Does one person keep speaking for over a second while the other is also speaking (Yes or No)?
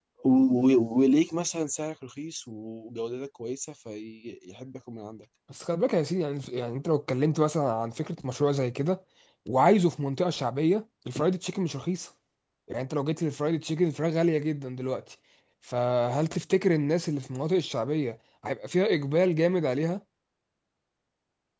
No